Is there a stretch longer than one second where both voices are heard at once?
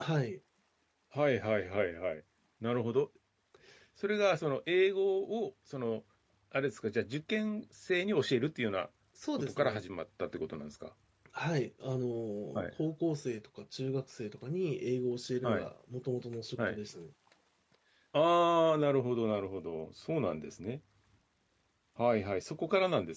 No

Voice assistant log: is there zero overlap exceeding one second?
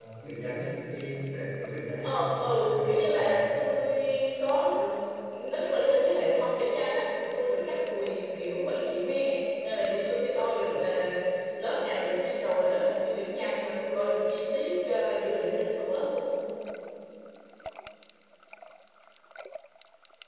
No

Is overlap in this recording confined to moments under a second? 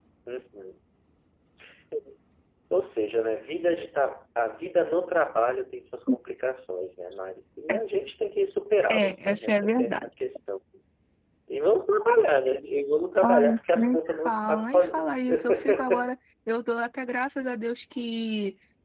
No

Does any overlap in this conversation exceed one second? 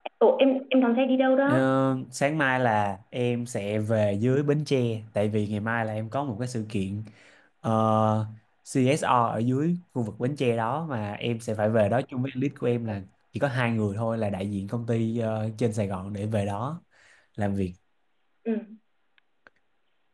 No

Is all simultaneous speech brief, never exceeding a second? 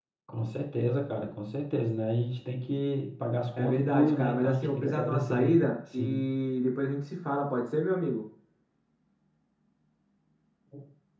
No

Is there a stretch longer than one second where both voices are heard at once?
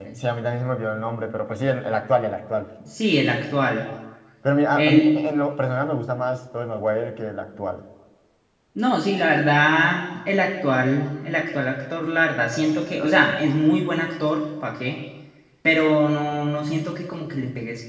No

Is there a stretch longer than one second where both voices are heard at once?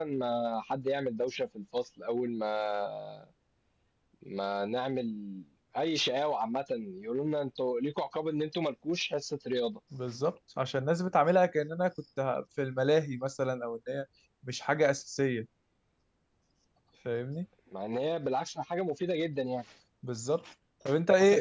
No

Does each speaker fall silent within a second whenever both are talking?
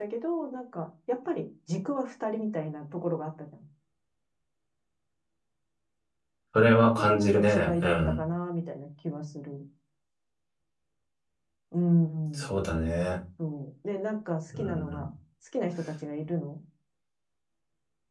No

